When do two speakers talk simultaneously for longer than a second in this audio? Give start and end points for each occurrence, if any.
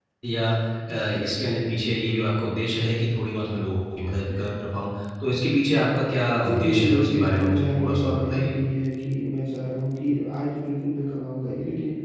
6.4-8.5

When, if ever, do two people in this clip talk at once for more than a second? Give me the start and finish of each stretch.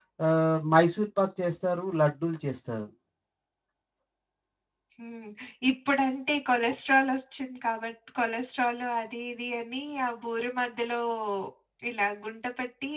none

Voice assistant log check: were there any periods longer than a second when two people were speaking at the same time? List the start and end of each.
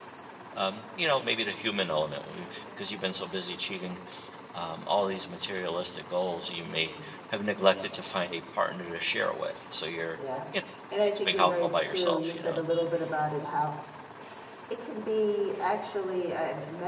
11.2-12.6

